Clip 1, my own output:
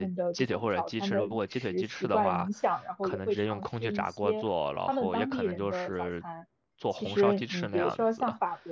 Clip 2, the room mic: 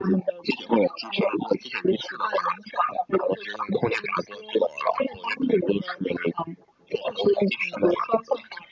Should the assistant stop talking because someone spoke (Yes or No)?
No